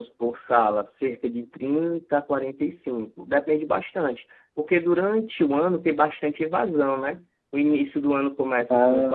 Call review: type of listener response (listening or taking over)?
listening